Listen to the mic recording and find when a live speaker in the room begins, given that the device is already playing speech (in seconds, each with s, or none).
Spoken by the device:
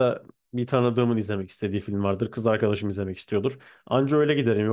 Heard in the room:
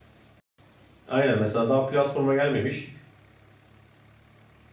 1.1 s